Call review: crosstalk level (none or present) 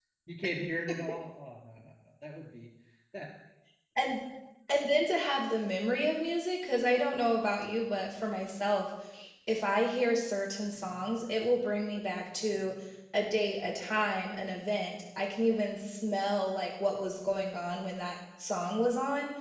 none